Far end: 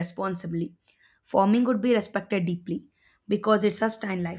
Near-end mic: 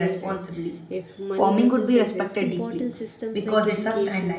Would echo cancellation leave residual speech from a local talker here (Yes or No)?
Yes